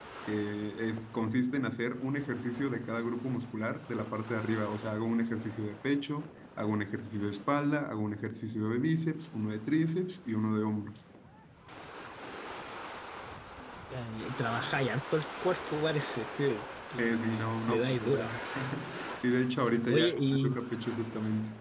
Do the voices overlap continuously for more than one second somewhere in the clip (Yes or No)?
Yes